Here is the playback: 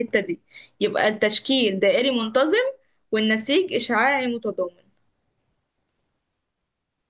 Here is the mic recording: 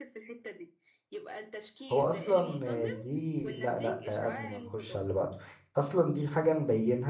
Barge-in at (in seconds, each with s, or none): 1.9 s